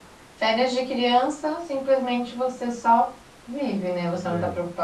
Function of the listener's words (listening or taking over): listening